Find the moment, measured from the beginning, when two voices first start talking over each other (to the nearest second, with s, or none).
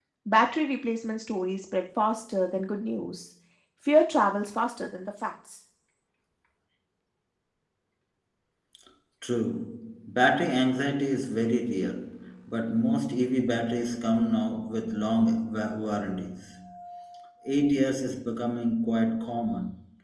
none